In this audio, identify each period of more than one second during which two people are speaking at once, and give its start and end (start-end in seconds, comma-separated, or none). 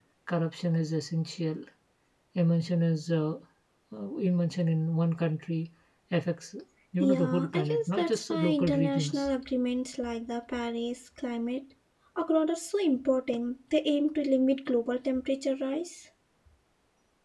7.0-9.3